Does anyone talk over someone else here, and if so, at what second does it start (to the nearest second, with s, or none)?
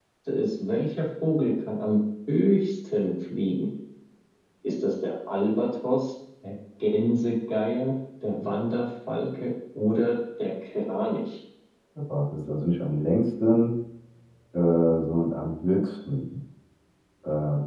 none